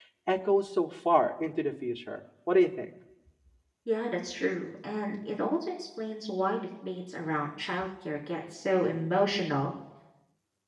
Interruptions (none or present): none